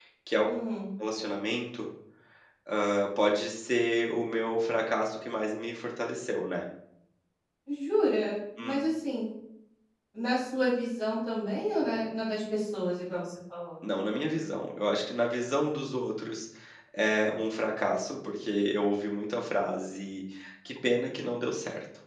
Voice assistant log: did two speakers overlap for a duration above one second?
No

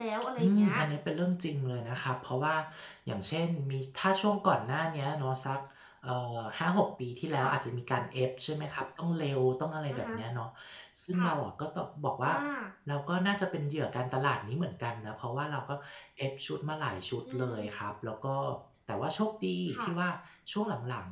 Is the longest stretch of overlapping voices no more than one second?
Yes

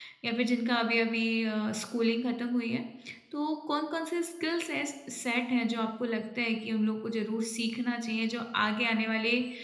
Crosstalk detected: No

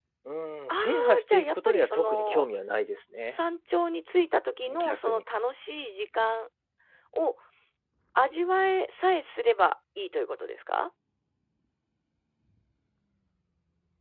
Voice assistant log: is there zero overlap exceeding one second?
No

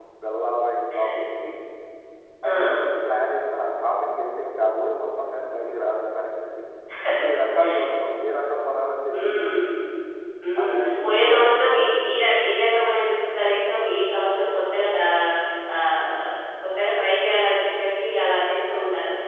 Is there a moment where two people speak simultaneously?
Yes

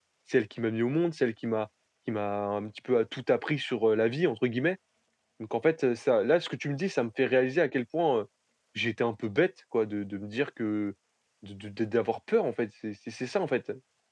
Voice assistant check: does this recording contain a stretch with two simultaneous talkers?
No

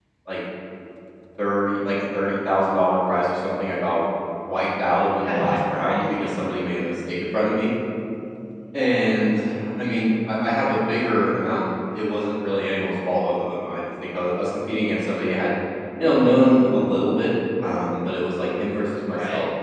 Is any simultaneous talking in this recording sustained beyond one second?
Yes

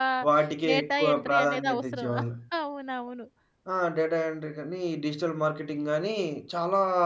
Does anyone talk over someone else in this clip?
Yes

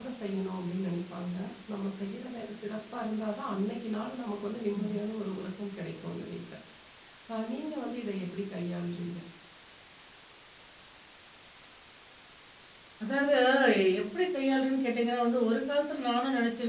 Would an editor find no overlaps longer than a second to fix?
Yes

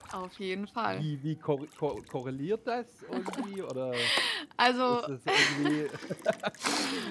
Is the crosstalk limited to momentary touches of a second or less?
Yes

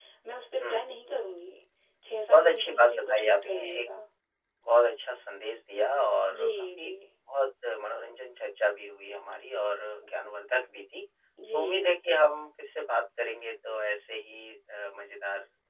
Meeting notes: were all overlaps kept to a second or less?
No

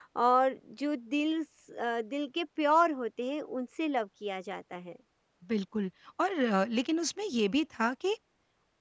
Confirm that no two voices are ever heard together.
Yes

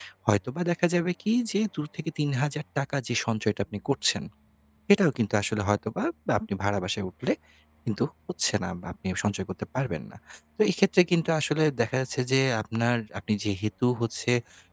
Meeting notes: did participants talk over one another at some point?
No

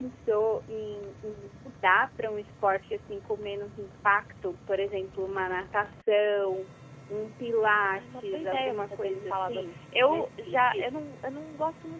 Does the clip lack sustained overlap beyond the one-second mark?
No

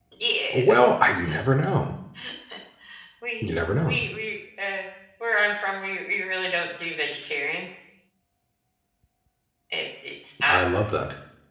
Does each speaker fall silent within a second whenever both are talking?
Yes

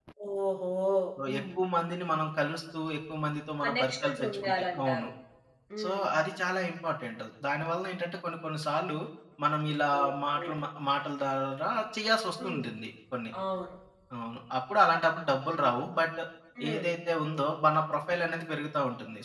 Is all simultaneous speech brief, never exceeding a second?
No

